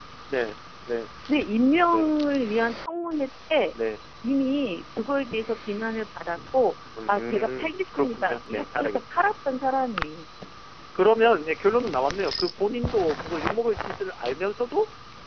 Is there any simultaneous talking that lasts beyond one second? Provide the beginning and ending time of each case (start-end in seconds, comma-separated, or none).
7.1-9.3